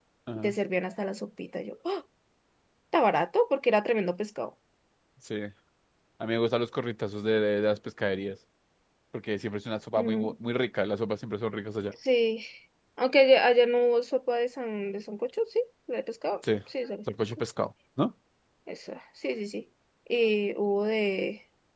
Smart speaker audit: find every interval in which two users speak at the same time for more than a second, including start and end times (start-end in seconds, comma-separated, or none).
none